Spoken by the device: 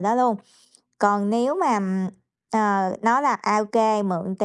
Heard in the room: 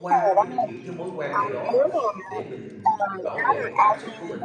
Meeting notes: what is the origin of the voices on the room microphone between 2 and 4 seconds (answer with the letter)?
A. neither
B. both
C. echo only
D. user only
B